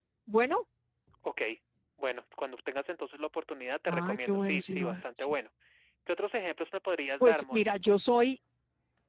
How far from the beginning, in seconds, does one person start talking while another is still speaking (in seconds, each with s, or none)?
3.9 s